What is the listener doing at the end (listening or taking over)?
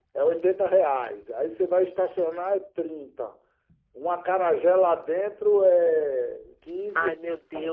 taking over